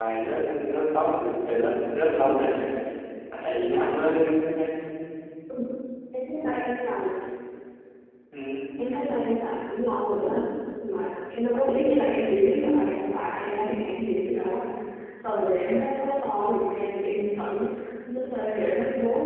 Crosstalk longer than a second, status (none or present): none